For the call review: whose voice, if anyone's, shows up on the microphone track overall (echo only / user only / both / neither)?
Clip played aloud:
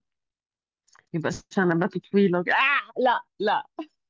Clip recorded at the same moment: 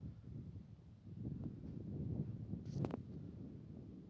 neither